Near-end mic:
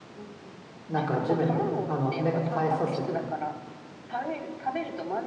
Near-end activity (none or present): present